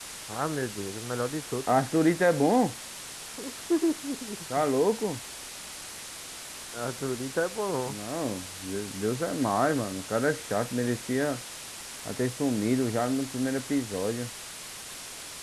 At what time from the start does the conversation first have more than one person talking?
none

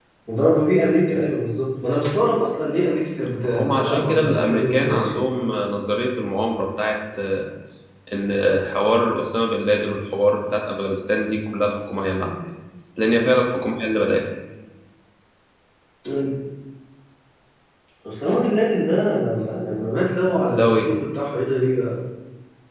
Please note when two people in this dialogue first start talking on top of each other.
3 s

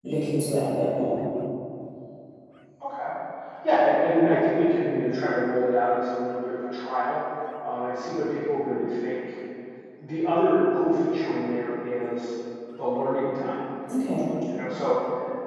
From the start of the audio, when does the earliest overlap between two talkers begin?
none

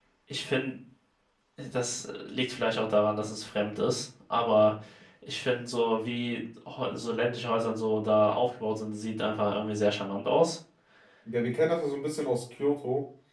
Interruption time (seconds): none

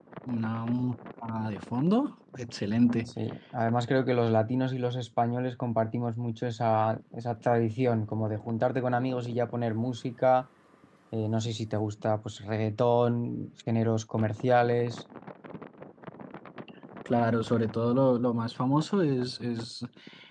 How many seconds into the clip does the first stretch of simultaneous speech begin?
none

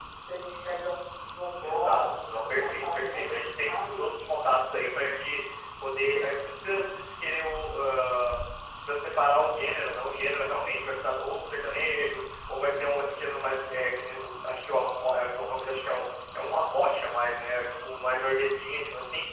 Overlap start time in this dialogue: 2 s

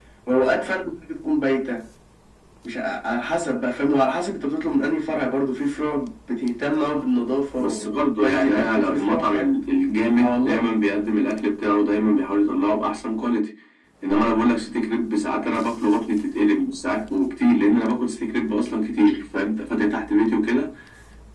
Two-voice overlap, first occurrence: 8 s

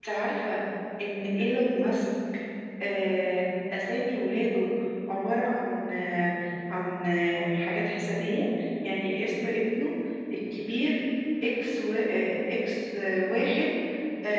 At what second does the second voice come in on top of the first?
none

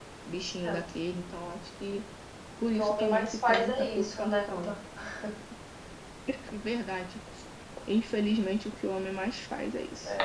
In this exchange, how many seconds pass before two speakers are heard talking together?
3 s

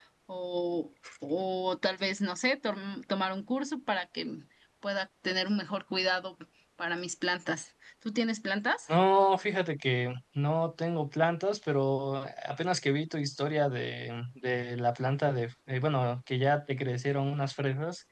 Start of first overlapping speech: none

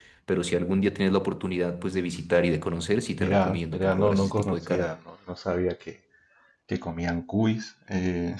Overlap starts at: 3 s

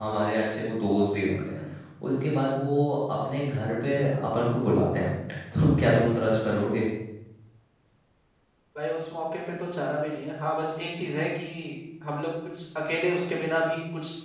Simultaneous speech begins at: none

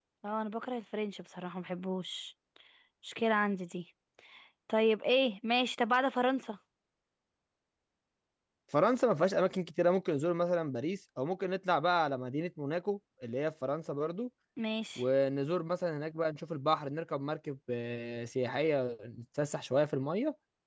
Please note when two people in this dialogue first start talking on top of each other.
none

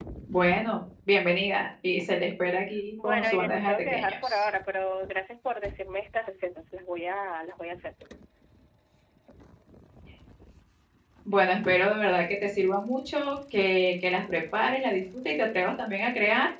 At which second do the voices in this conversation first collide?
3 s

